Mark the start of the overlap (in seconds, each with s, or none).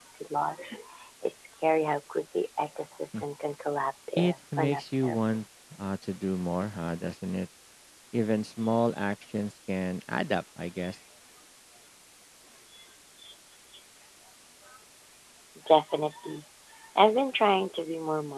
4.2 s